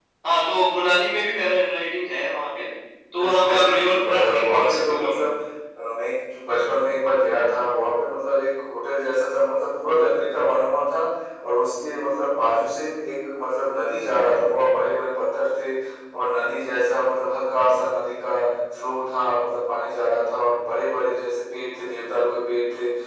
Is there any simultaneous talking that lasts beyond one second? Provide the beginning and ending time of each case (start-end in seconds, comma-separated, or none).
3.1-5.2